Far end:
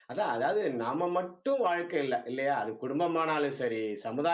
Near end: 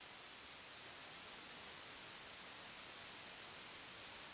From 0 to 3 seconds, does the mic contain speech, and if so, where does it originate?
neither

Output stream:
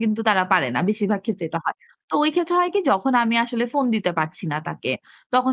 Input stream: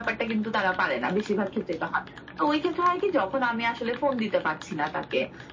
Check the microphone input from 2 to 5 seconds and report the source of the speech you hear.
echo only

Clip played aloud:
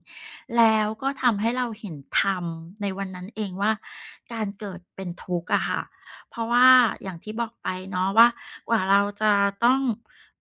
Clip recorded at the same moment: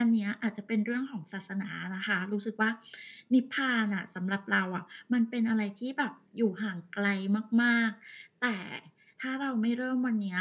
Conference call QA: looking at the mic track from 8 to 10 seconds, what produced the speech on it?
user only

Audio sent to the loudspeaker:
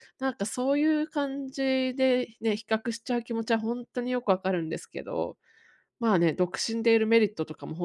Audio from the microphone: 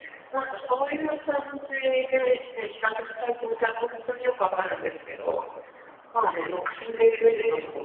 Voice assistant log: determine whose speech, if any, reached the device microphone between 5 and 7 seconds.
echo only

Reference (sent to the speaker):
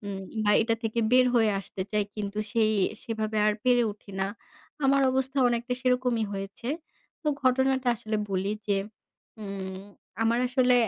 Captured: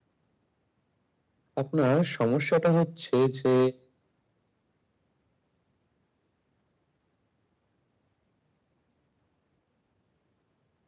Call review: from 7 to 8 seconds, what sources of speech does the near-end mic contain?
neither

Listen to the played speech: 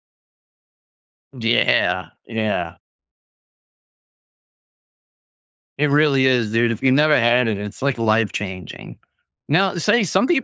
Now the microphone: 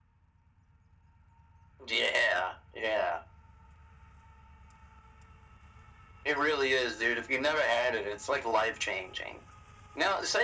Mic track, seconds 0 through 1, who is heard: neither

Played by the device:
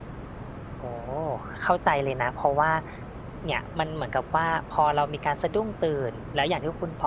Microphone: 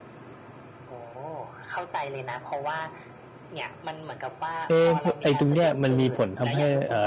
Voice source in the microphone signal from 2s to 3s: echo only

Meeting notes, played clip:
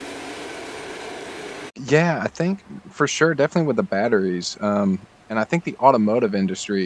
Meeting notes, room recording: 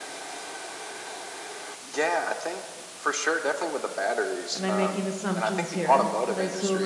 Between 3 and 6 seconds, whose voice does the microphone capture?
both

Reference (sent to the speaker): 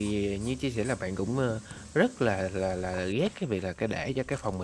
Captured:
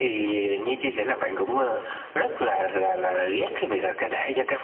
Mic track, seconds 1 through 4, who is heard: echo only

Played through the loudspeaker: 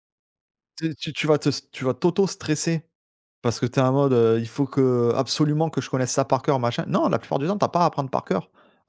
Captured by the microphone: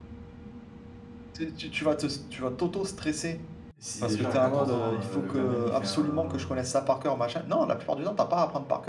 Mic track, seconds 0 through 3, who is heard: echo only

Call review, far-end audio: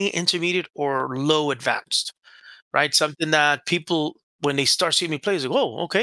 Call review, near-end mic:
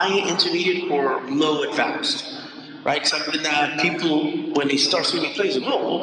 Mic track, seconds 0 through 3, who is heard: echo only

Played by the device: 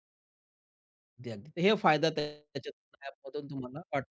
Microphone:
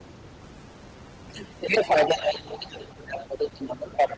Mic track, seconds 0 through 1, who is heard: neither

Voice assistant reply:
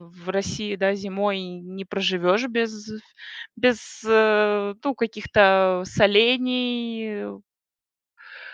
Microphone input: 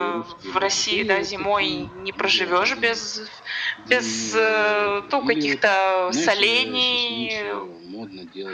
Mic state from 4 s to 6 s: both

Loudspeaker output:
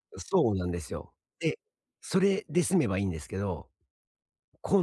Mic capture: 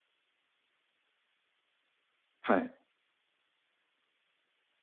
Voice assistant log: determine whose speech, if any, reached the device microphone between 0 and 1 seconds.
neither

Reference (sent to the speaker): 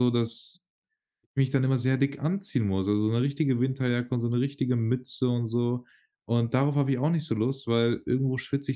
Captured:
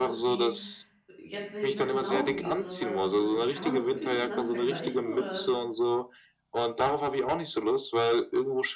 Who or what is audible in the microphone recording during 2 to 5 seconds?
both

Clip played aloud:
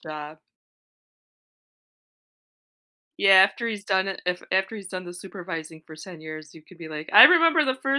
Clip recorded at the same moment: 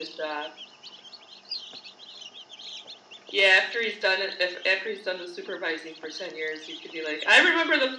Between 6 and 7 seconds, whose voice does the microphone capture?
echo only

